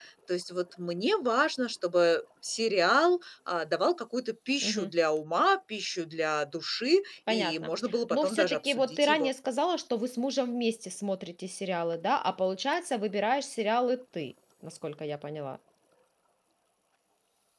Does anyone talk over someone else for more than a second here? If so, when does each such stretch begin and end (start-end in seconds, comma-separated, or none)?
8.1-9.3